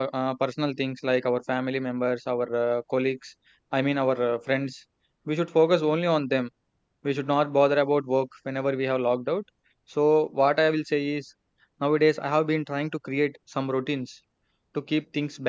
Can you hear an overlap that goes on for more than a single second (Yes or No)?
No